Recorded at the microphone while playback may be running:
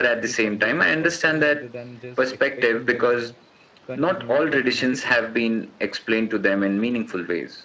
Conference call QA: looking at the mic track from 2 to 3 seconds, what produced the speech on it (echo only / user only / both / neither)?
both